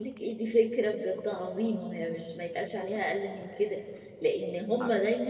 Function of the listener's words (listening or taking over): listening